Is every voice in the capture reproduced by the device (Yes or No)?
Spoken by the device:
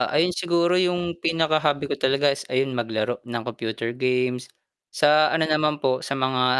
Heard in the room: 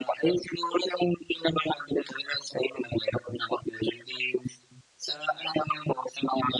Yes